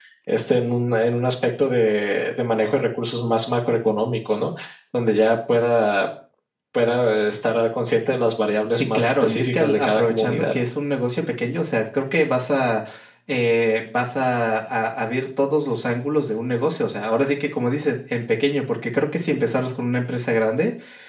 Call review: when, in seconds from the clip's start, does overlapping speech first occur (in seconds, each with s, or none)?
8.7 s